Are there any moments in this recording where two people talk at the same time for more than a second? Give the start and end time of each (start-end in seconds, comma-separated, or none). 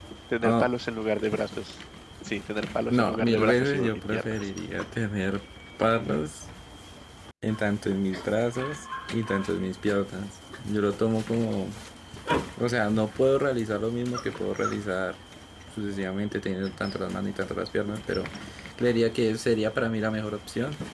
2.9-4.5